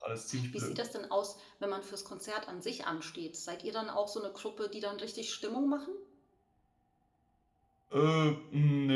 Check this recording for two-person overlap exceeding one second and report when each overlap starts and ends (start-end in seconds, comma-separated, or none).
none